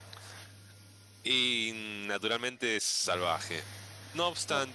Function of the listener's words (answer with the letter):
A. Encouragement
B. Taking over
A